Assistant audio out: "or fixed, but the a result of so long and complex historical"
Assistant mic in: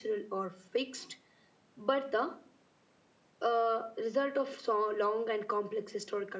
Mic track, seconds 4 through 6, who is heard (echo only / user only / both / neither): echo only